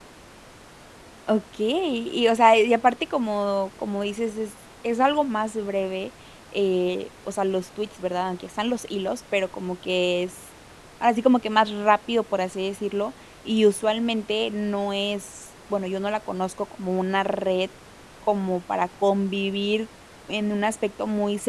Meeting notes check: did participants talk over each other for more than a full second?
No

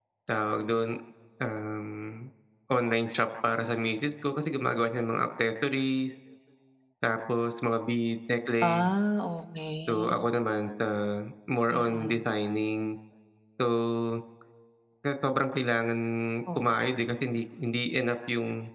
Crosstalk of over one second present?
No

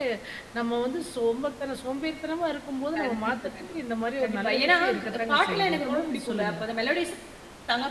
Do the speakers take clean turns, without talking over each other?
No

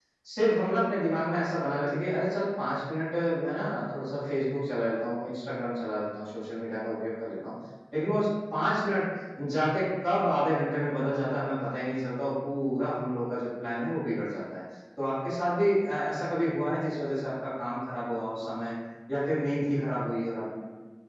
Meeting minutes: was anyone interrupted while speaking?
No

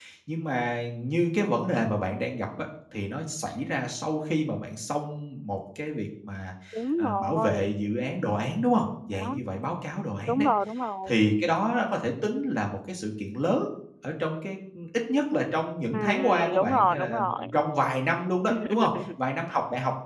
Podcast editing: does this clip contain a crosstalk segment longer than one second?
Yes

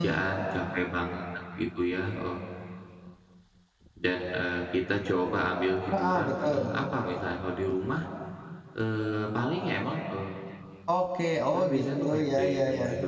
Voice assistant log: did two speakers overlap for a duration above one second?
Yes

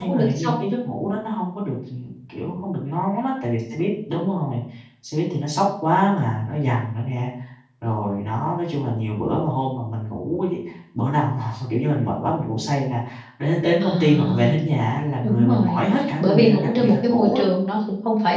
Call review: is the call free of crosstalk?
No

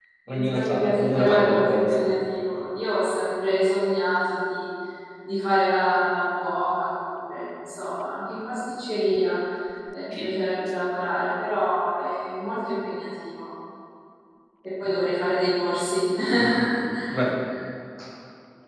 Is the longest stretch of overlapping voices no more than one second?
No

